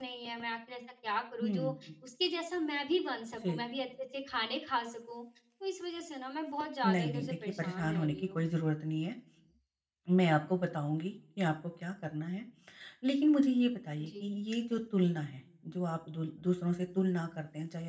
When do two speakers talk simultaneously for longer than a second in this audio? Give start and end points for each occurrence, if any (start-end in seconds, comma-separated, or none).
6.8-8.4